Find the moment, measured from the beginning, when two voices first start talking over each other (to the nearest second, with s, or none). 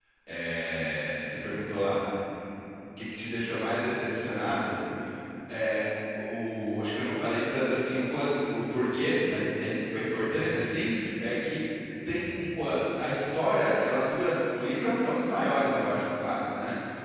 none